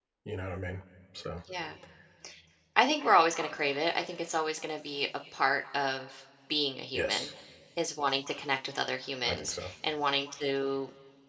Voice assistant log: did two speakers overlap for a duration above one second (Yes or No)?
No